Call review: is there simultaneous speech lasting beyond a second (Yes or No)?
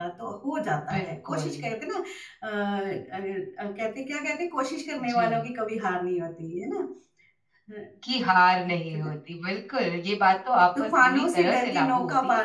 Yes